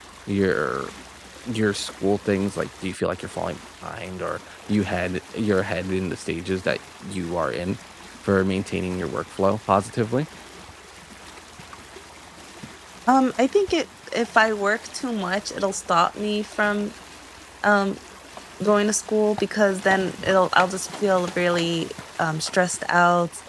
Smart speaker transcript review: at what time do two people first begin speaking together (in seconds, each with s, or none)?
none